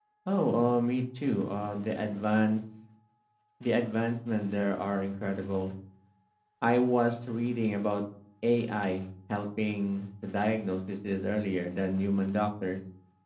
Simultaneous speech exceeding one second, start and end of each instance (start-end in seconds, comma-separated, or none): none